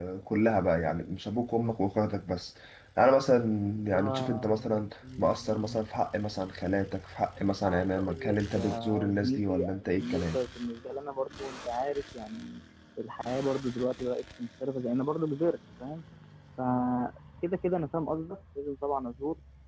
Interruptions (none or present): present